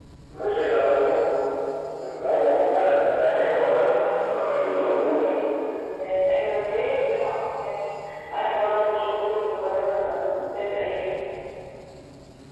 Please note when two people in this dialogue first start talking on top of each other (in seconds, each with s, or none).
3.1 s